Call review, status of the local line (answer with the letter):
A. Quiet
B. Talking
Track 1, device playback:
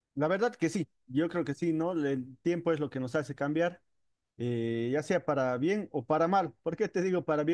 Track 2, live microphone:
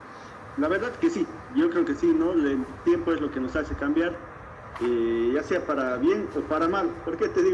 A